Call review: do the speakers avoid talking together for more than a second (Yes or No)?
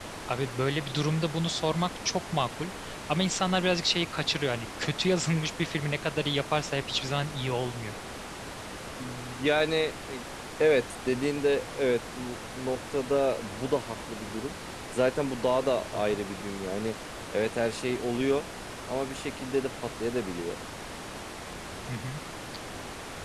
Yes